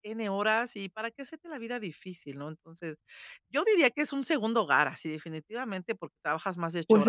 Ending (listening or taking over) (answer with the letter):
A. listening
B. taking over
B